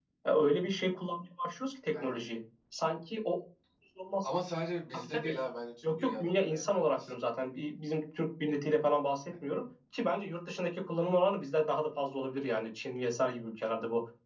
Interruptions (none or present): present